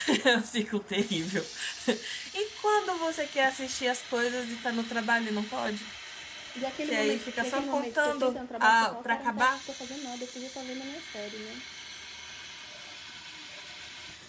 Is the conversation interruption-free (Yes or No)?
No